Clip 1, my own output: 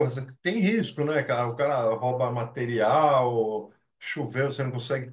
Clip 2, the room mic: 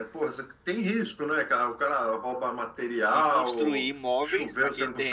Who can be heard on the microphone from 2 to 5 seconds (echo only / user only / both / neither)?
both